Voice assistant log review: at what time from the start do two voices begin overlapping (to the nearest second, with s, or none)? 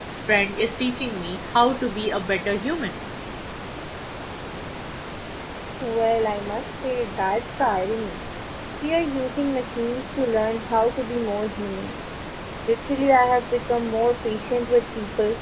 none